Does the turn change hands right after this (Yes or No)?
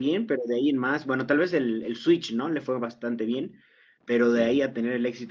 No